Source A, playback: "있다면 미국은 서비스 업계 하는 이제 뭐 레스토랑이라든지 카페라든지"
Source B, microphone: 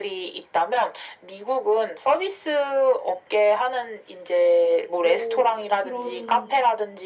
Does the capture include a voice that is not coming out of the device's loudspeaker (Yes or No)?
Yes